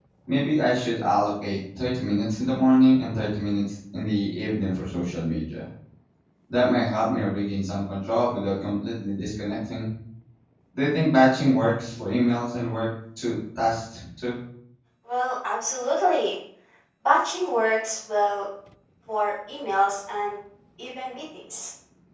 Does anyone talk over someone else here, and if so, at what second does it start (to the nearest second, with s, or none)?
none